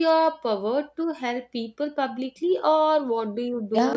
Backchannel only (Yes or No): No